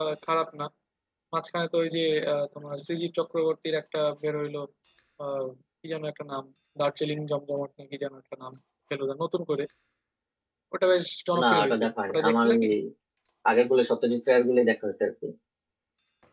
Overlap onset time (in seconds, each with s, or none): 11.4 s